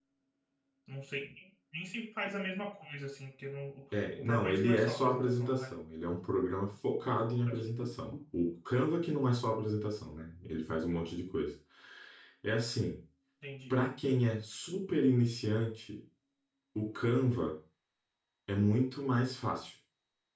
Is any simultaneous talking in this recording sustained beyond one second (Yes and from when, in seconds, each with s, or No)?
Yes, from 4.2 s